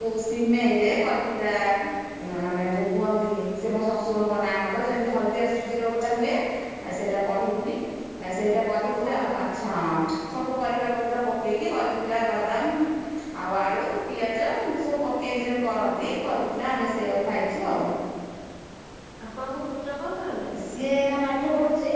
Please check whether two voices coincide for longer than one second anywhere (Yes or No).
No